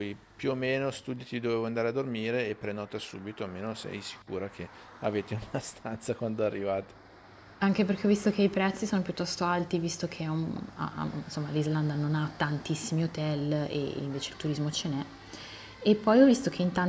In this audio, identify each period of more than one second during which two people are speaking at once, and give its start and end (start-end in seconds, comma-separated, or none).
none